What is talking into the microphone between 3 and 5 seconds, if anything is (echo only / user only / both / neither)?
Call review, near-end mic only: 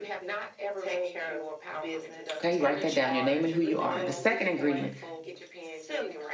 both